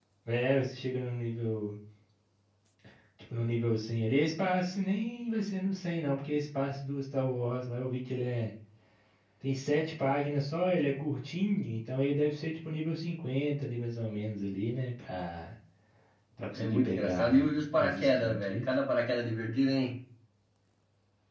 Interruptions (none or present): present